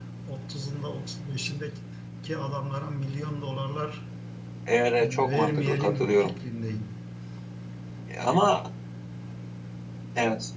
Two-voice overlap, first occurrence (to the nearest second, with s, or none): 5 s